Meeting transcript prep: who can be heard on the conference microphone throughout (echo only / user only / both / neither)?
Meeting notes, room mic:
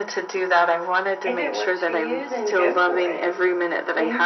both